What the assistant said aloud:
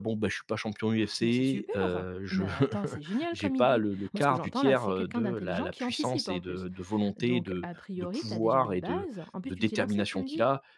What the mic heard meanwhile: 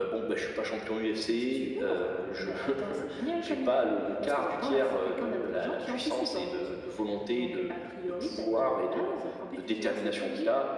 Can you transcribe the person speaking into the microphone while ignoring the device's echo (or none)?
none